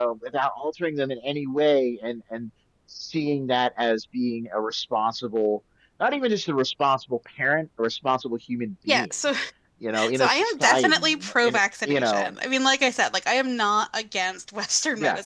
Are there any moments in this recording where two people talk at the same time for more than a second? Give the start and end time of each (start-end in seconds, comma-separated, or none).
10.1-12.3